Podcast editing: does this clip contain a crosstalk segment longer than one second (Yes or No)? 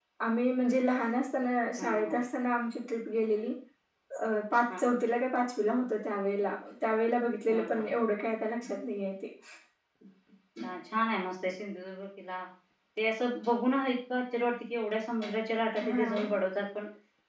No